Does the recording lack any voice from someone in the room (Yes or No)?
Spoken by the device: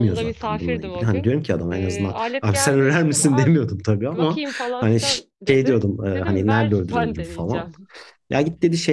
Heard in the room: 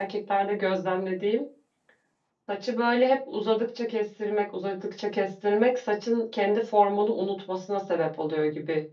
No